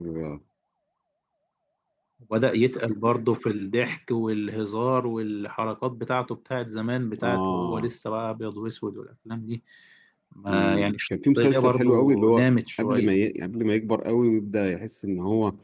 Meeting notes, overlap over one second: present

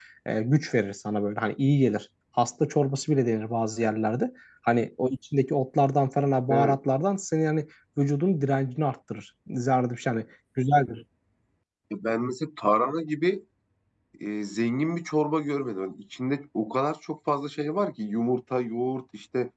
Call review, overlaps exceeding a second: none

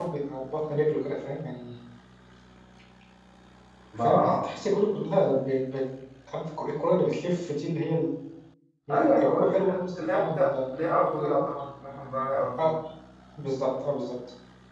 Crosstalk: present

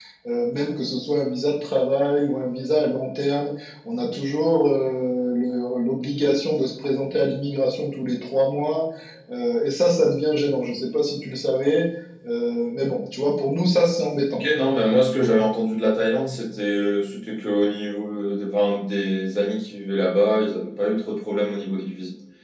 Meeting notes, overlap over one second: none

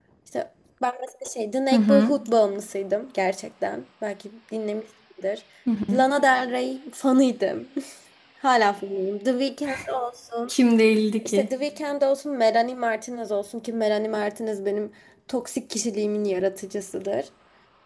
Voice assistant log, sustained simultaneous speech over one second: none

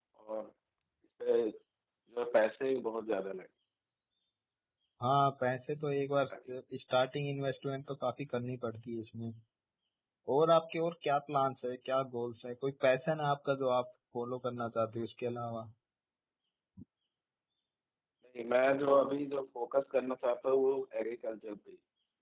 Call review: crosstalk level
none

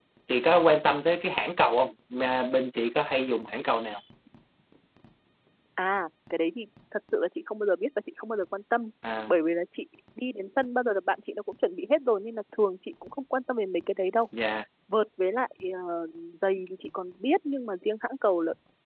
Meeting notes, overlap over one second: none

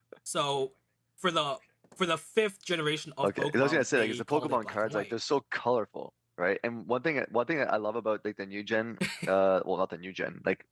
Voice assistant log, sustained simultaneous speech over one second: present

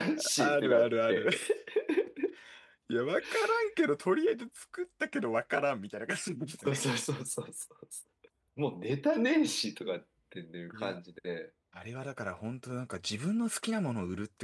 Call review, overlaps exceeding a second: present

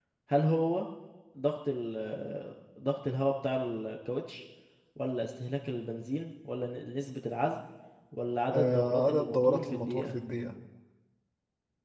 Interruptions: present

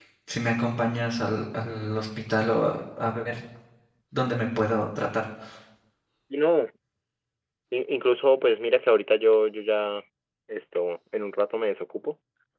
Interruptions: none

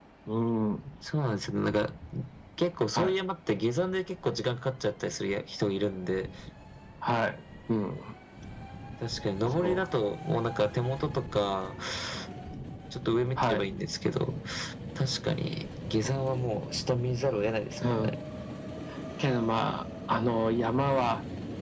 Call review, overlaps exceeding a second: none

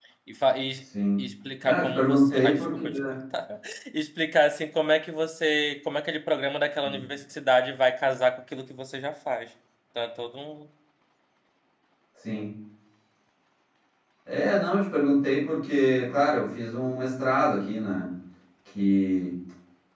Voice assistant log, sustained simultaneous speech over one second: present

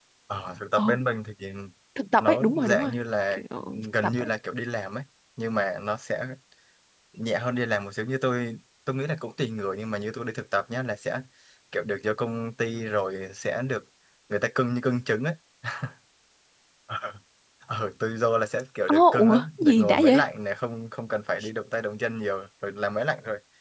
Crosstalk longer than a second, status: present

